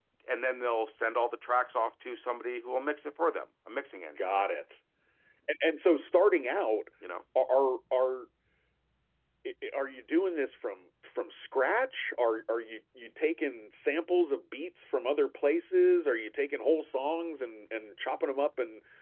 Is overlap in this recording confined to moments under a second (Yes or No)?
Yes